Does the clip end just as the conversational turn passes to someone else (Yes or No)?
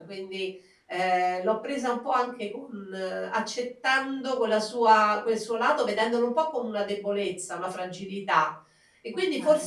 No